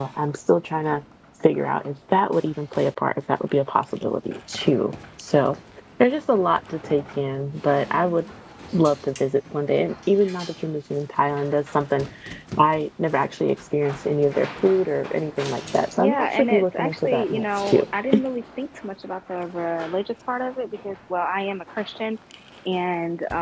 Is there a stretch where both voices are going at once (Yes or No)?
Yes